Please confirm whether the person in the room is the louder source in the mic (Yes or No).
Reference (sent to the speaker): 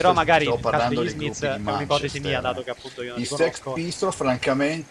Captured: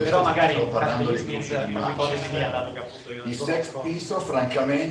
No